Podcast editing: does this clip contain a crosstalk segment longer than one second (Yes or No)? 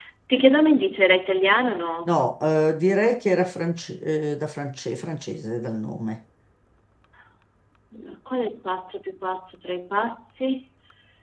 No